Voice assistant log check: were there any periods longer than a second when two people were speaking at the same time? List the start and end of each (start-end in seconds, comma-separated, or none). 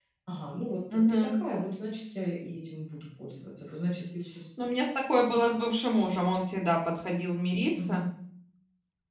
none